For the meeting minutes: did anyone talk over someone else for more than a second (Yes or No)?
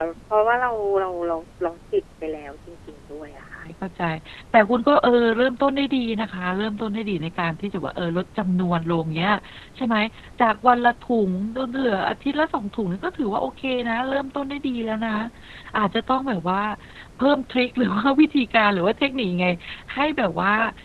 No